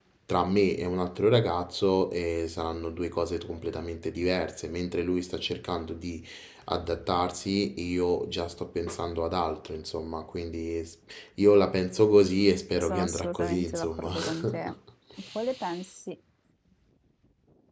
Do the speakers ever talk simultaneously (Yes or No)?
Yes